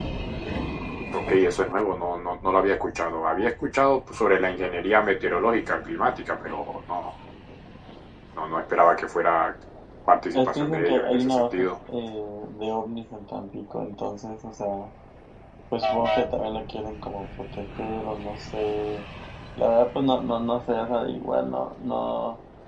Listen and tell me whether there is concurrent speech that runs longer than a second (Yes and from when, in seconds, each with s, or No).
Yes, from 10.3 s